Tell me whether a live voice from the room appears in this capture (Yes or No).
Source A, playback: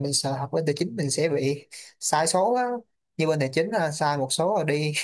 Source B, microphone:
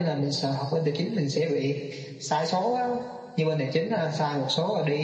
No